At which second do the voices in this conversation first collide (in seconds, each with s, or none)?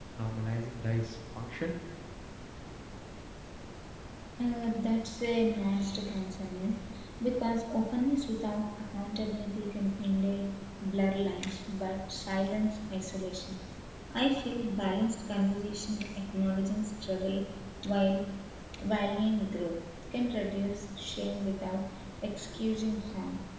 none